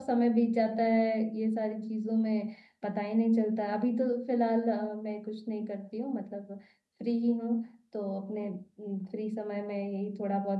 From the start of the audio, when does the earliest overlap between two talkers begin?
none

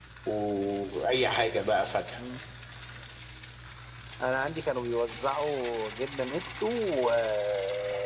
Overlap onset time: none

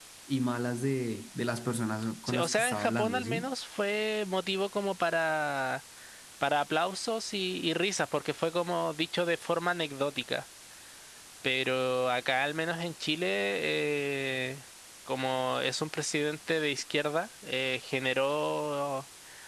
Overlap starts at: 2.3 s

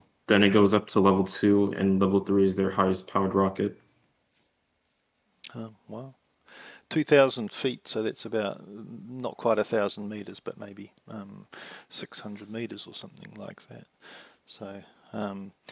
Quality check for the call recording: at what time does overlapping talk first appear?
none

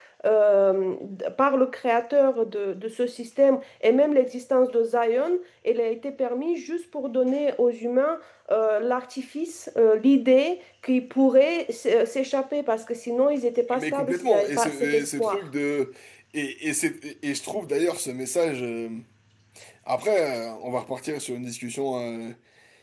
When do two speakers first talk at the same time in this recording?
13.7 s

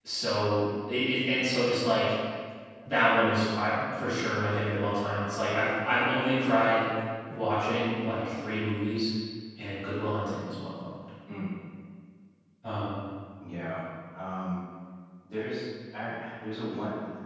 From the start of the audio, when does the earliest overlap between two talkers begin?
none

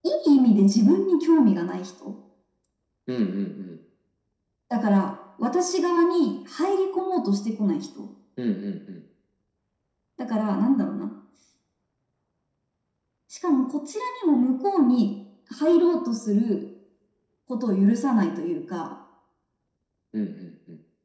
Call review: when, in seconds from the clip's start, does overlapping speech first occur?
none

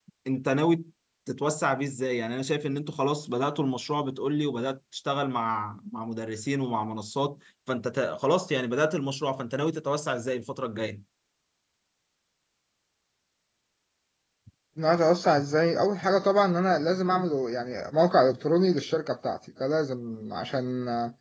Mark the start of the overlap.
none

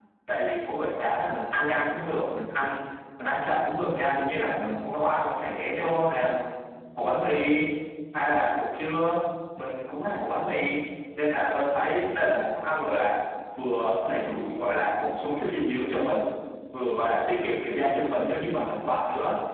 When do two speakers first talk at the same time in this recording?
none

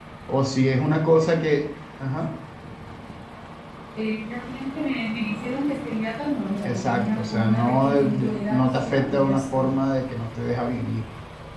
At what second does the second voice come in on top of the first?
6.7 s

